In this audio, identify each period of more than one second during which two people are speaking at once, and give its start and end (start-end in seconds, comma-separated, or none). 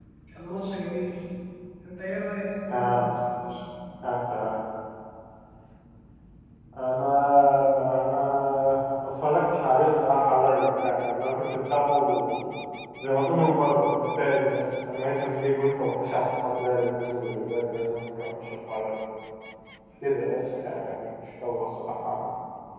none